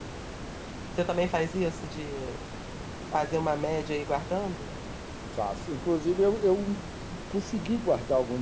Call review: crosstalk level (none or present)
none